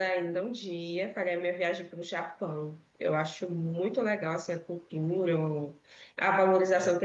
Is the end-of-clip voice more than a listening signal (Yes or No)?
No